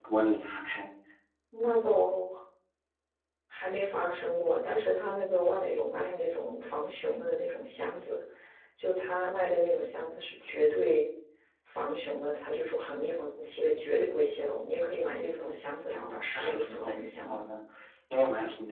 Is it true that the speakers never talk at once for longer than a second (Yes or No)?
No